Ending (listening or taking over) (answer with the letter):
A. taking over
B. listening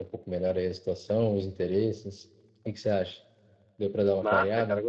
A